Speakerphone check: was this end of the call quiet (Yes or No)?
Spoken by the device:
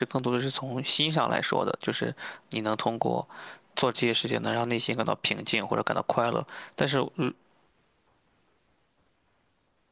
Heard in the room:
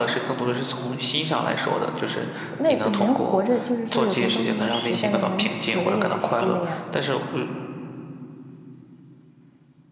No